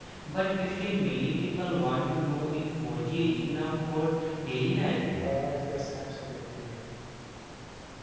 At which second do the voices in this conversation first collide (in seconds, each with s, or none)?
none